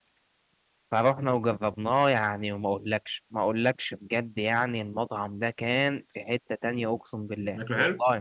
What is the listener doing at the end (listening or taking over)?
listening